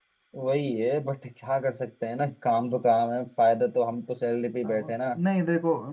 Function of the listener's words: taking over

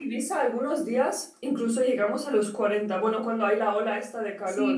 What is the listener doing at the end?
taking over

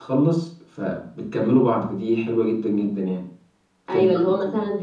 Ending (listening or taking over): taking over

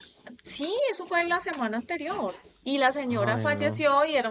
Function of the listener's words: listening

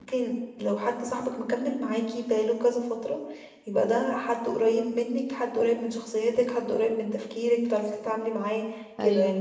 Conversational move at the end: listening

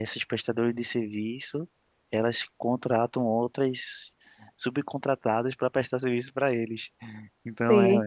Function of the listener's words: listening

